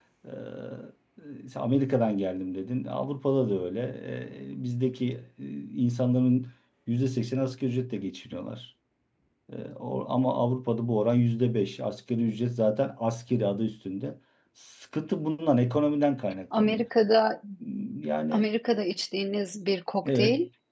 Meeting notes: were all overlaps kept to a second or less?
Yes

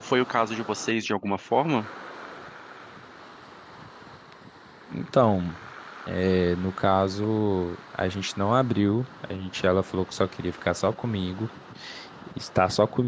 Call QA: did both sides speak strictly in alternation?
Yes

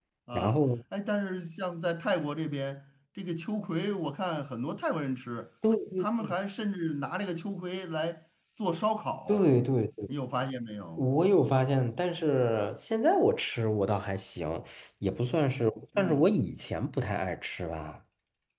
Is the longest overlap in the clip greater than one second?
No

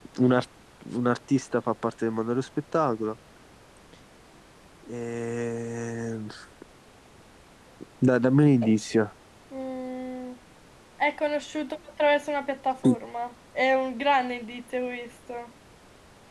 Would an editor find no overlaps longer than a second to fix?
Yes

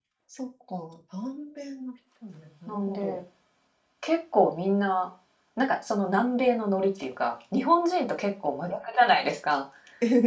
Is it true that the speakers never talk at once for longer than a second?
Yes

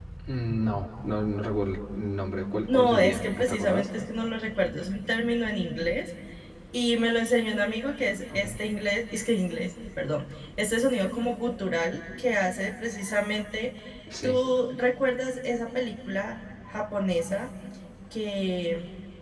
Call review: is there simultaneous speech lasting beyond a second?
Yes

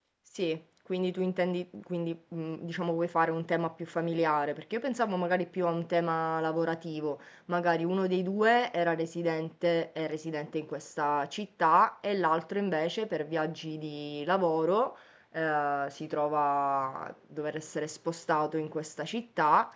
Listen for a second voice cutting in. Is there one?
No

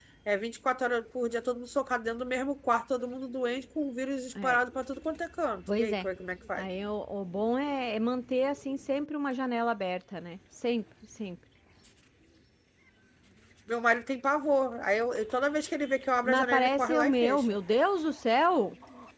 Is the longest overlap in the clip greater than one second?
Yes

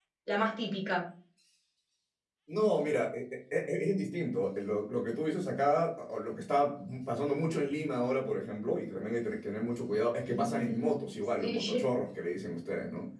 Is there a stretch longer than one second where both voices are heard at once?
Yes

